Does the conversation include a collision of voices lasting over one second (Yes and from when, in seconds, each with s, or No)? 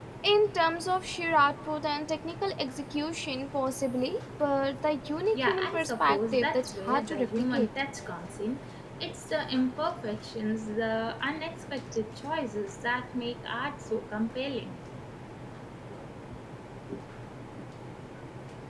Yes, from 5.3 s